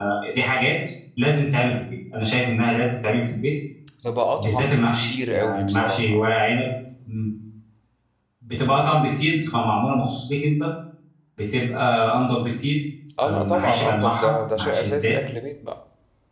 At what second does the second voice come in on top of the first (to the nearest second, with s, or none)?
4 s